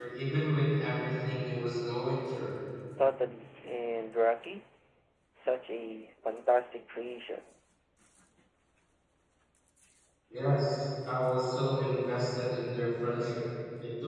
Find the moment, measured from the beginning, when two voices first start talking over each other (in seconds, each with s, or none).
none